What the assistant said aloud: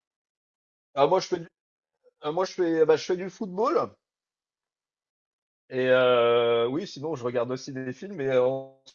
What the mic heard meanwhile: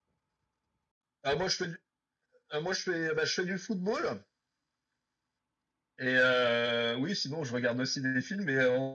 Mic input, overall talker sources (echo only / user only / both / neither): echo only